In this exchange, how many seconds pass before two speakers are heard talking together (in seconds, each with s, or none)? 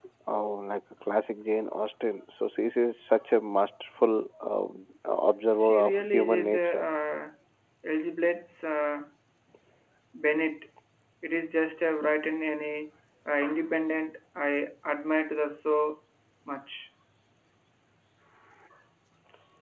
5.6 s